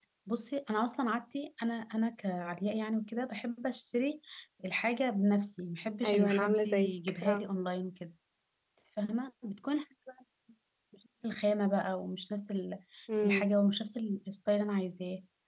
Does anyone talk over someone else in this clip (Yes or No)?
Yes